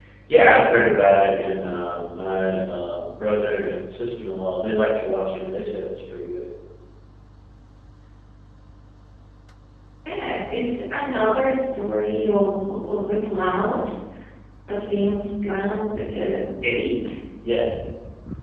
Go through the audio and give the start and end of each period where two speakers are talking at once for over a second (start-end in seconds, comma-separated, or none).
none